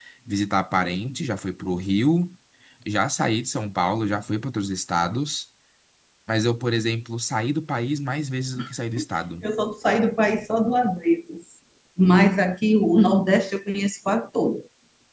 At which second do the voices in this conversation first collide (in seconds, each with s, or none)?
none